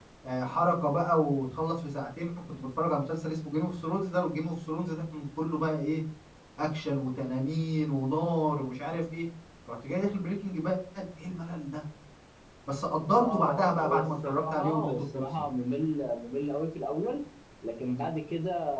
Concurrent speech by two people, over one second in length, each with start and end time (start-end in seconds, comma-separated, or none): 13.1-15.3